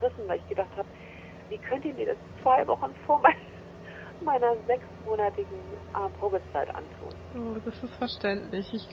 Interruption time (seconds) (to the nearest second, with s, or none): none